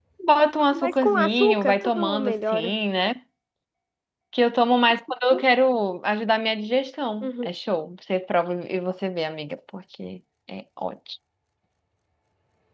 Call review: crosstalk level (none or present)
present